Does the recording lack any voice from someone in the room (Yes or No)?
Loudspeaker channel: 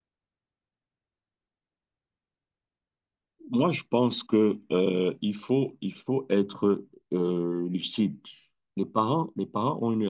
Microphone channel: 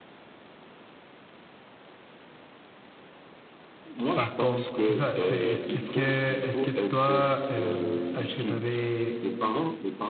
No